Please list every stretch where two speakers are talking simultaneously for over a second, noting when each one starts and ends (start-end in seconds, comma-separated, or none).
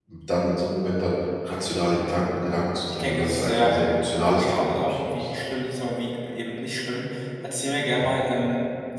2.9-5.3